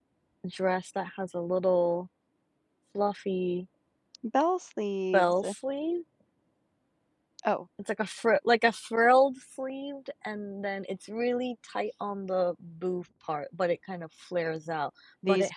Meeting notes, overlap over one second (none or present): none